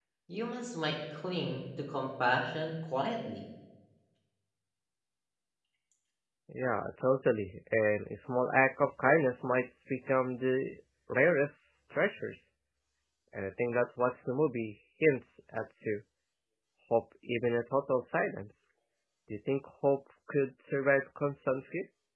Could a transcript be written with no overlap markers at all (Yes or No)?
Yes